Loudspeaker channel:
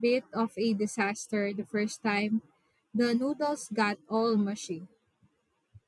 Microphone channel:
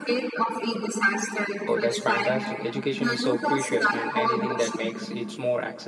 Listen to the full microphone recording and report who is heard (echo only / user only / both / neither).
both